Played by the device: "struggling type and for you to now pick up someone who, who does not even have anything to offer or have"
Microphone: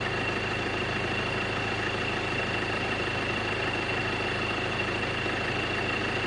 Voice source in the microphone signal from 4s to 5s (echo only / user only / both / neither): neither